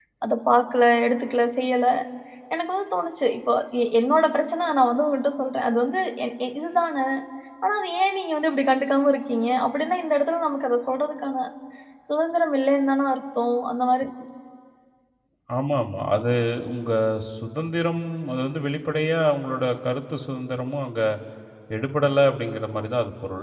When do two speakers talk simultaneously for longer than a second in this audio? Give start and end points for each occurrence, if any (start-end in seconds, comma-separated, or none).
none